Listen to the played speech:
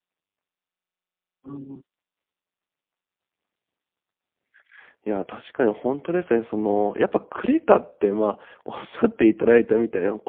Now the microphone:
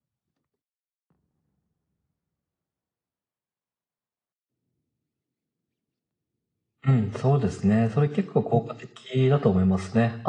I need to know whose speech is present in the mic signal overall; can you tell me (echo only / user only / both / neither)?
user only